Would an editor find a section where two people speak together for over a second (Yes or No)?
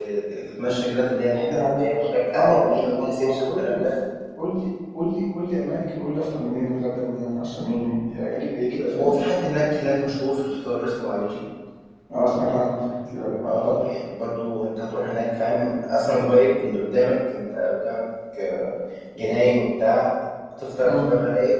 Yes